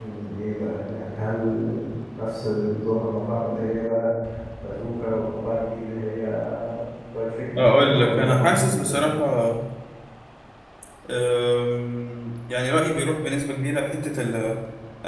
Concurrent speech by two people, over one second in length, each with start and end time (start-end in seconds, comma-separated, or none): 7.6-9.0